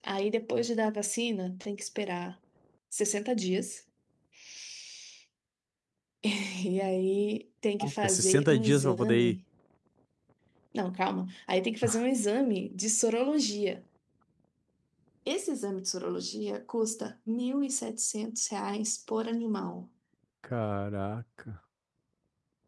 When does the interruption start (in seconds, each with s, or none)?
7.8 s